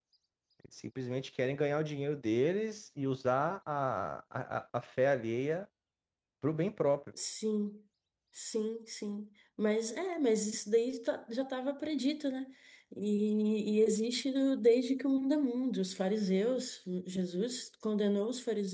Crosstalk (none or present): none